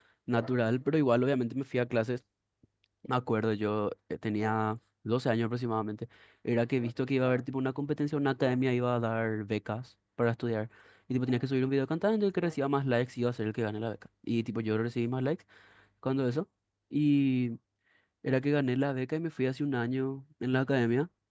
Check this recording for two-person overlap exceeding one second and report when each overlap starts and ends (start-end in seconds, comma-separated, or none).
none